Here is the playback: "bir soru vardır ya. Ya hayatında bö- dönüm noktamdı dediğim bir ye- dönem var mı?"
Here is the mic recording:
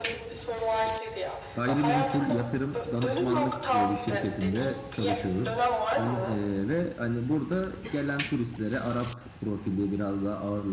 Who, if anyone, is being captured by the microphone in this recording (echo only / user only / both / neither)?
both